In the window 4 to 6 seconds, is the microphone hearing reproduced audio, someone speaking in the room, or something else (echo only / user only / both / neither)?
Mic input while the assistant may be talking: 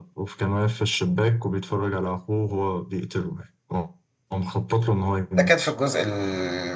both